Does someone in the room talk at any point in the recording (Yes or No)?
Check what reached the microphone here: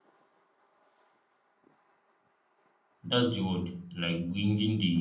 Yes